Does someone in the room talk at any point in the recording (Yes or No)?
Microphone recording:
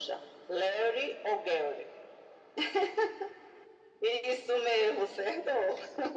No